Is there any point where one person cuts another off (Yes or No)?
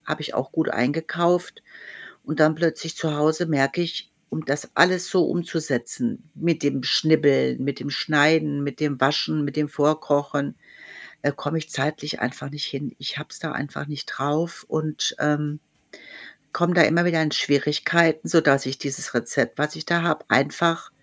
No